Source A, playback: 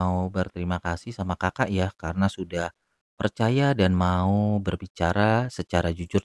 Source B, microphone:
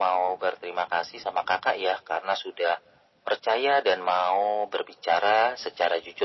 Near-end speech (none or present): none